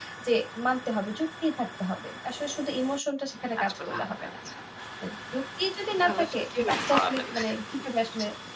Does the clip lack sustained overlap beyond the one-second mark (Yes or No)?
No